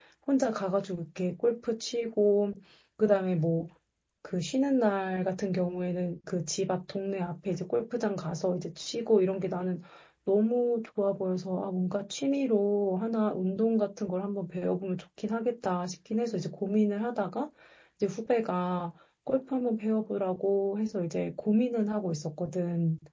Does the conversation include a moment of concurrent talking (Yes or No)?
No